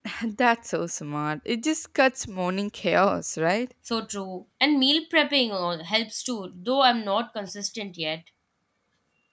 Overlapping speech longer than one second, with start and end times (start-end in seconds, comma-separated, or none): none